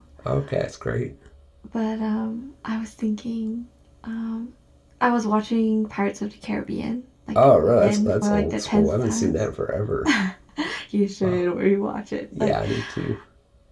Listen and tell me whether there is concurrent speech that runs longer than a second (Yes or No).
Yes